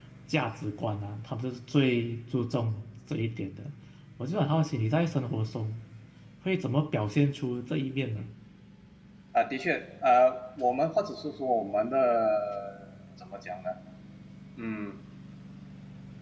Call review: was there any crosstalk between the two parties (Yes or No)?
No